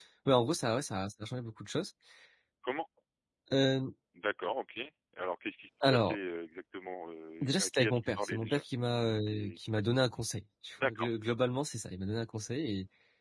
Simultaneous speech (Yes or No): Yes